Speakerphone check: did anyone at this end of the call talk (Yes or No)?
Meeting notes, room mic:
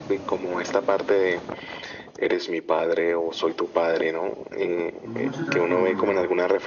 Yes